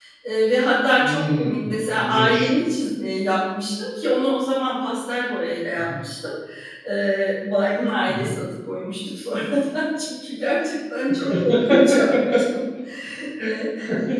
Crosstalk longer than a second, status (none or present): present